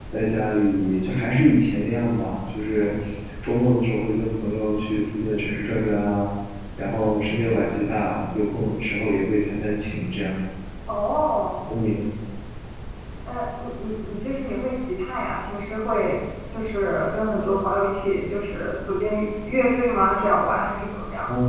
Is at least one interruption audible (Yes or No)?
No